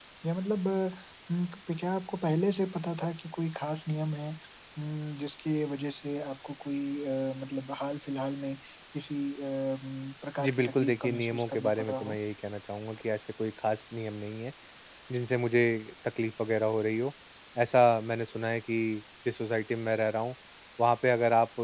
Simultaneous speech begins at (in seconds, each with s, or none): 10.4 s